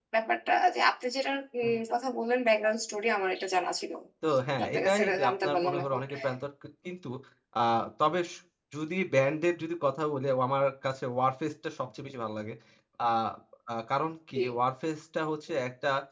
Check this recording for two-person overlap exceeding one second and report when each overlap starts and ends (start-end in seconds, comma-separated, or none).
4.6-6.0